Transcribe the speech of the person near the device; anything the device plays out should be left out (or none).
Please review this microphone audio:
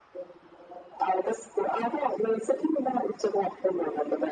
none